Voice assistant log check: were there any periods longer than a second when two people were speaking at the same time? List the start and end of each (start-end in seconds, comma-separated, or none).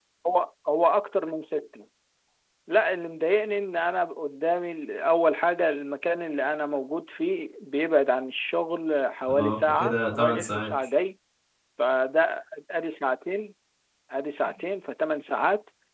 9.3-10.7